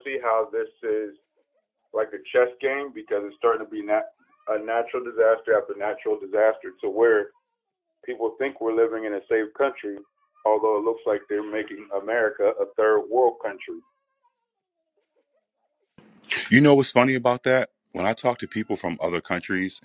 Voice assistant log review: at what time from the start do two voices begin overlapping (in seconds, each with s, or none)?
none